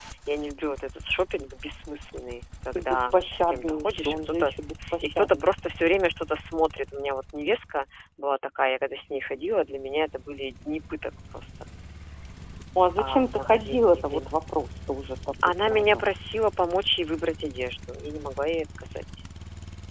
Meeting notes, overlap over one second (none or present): present